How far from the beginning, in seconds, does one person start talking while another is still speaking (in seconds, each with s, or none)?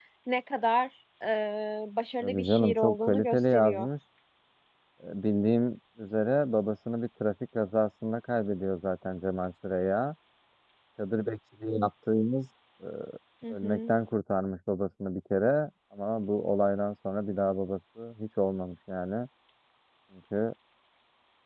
2.2 s